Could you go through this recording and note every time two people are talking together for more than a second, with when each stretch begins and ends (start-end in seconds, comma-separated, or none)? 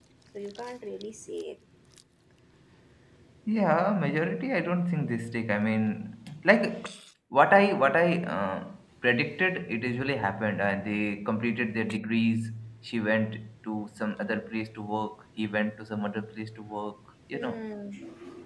none